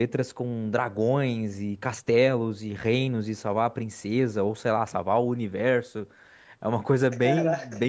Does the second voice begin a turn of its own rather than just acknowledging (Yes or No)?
No